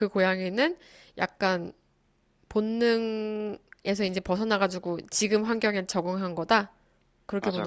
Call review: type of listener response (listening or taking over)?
taking over